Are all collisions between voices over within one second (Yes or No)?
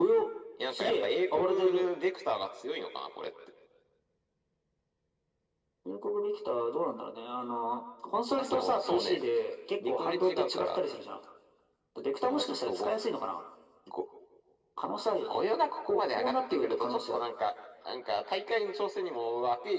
No